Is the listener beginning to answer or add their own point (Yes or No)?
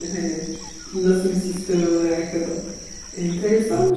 No